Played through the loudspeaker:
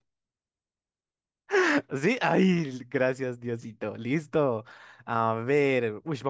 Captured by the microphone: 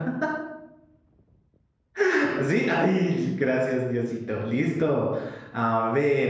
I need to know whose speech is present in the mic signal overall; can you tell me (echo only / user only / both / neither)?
echo only